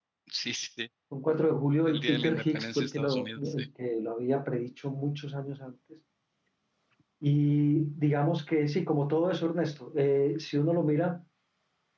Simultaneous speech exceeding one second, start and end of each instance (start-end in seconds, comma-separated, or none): 1.8-3.7